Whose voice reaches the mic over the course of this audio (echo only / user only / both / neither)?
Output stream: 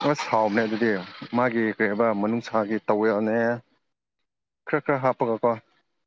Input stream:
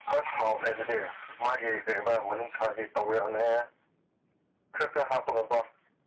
echo only